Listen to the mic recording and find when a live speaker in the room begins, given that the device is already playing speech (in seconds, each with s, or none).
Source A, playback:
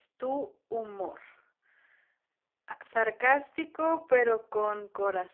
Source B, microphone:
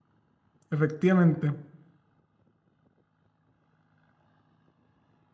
0.7 s